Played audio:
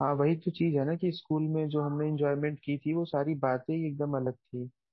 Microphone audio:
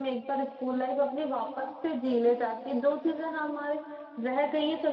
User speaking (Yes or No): Yes